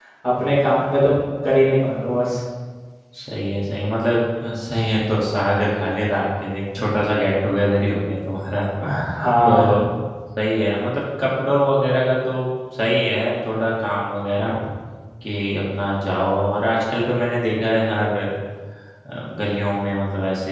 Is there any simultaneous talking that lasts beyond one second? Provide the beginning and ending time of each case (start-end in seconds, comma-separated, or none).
none